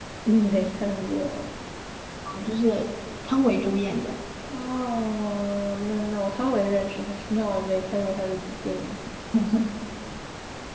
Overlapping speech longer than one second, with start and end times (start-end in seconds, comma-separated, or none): none